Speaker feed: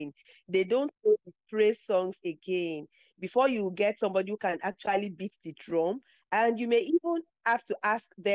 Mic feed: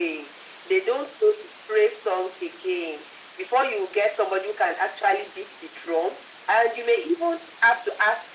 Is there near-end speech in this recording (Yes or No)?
No